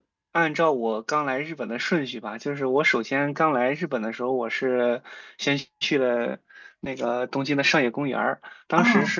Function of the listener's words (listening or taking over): listening